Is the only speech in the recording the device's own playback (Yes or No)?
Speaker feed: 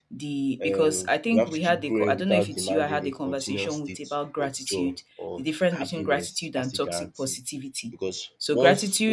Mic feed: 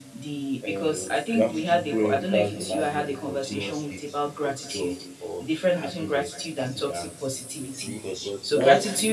No